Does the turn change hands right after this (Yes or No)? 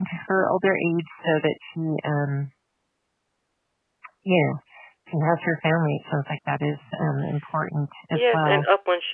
Yes